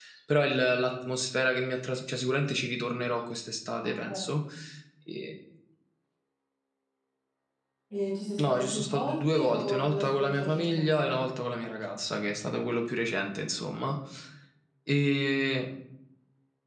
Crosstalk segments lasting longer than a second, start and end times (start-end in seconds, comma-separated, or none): 8.4-11.3